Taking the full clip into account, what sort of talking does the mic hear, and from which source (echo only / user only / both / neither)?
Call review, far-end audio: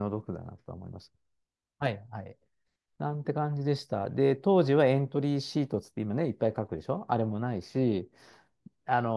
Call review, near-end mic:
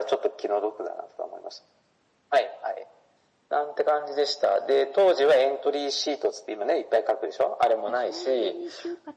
both